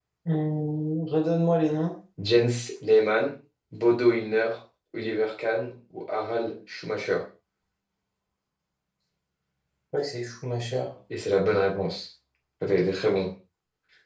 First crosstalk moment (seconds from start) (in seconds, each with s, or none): none